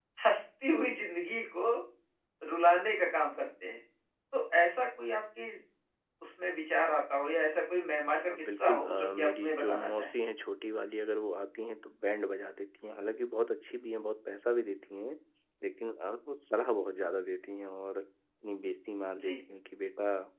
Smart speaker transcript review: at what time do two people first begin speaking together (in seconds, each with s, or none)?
8.3 s